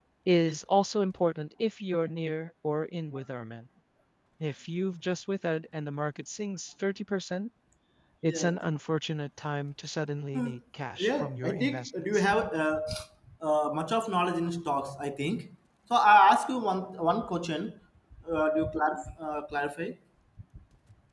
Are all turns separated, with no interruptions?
No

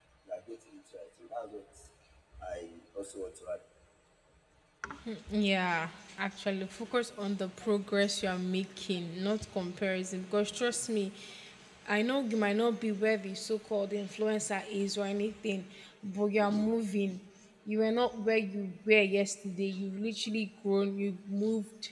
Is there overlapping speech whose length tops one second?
No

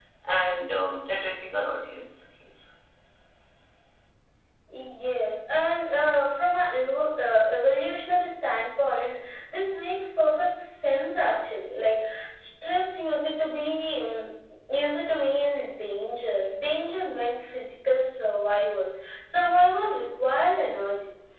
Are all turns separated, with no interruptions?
Yes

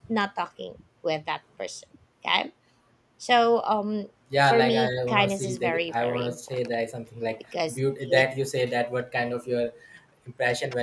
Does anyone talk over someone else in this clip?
Yes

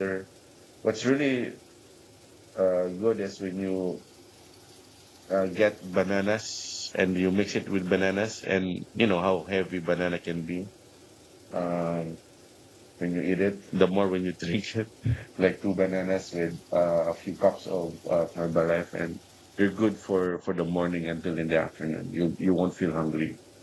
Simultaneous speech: No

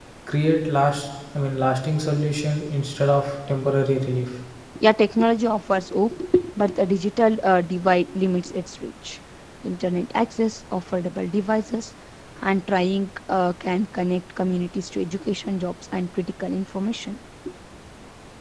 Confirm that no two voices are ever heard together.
Yes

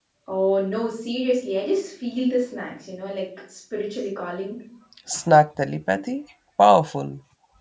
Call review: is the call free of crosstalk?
Yes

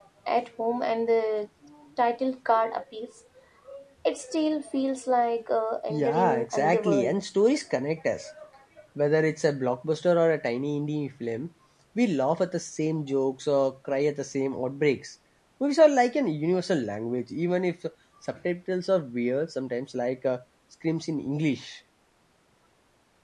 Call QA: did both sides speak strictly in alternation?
No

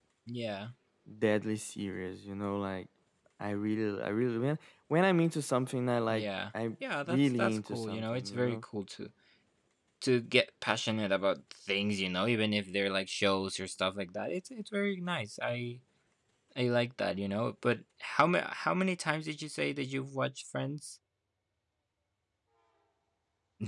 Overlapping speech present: Yes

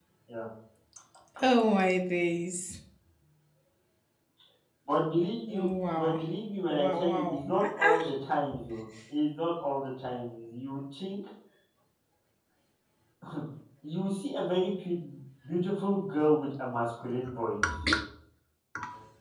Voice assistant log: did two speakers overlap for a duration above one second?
Yes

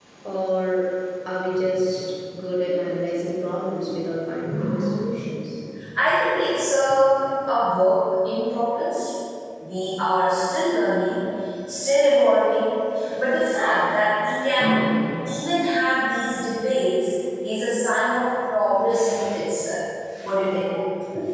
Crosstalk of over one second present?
No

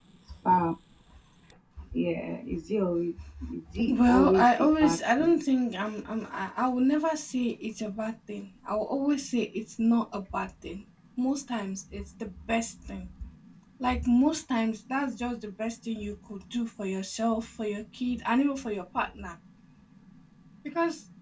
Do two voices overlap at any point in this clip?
Yes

